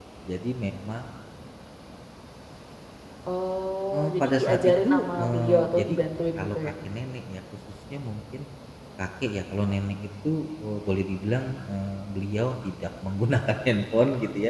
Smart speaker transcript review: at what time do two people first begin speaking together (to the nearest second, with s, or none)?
4 s